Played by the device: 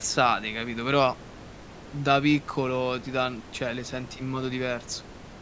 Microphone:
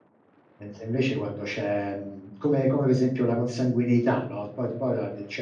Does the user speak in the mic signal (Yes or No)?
Yes